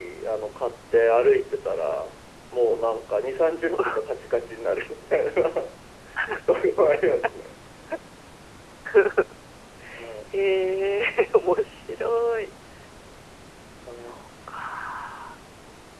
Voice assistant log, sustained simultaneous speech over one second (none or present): none